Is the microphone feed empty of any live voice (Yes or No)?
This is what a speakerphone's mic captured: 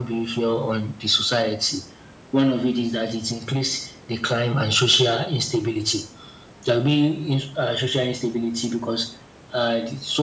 Yes